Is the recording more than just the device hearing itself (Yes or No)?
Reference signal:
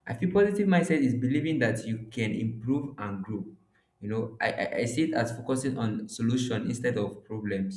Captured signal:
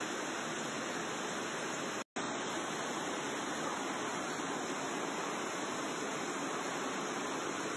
No